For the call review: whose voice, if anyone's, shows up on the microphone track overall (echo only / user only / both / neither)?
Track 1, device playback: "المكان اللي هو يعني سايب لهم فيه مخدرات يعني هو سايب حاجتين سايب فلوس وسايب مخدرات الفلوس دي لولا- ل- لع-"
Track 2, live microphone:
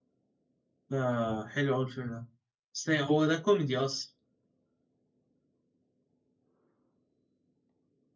user only